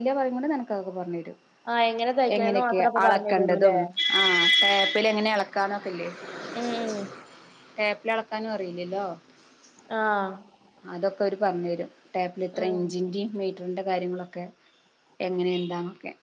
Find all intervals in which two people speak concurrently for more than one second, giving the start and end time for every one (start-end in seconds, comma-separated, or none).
2.4-3.7